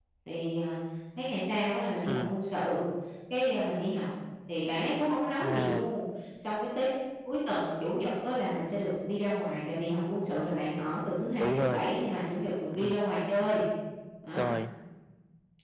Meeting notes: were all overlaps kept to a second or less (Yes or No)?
Yes